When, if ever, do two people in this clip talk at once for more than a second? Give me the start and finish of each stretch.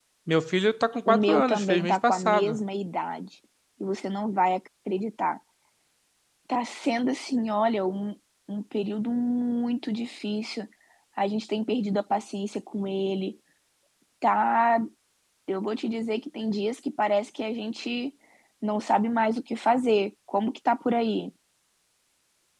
1.1-2.6

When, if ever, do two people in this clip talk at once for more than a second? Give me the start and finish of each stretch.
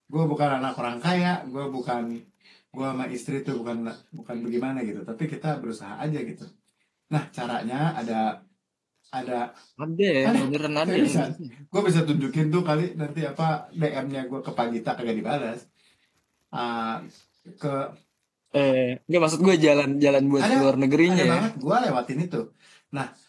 none

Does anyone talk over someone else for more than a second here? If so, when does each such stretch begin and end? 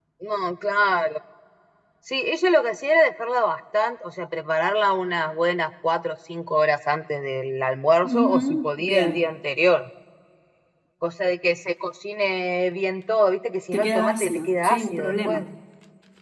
8.0-9.3, 13.7-15.4

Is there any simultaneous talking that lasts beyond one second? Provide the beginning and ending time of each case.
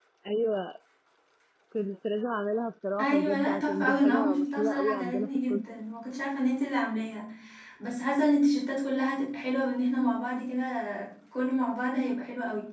3.0-5.6

